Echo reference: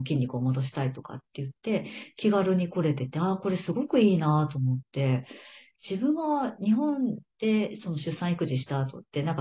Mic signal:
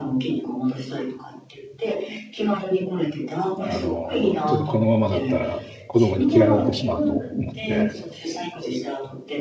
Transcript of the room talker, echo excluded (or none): あの、ちょっとこのままだったら子供に嫌われてしまうと思って、